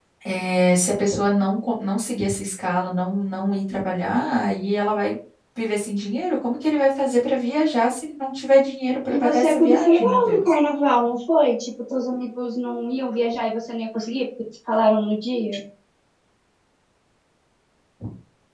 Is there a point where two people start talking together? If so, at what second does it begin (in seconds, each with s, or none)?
9.1 s